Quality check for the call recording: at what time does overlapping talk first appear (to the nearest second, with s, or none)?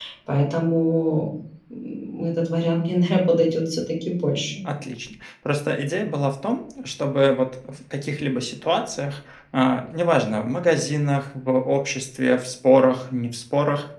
none